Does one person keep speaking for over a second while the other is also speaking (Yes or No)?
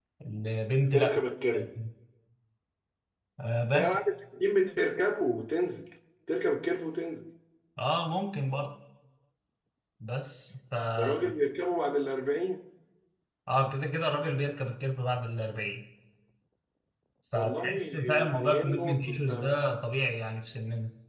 Yes